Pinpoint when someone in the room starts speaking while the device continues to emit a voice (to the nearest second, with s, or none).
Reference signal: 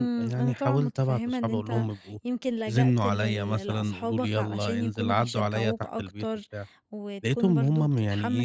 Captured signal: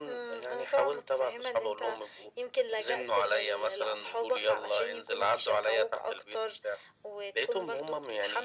none